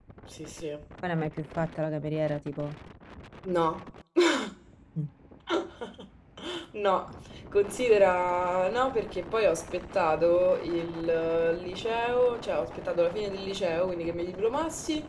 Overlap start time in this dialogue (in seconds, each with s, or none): none